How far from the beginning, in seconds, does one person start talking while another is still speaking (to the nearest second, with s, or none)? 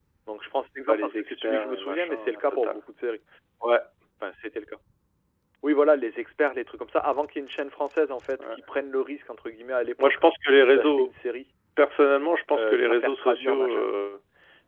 1 s